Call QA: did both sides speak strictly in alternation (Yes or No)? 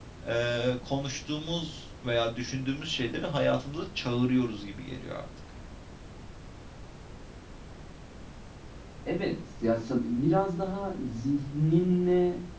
Yes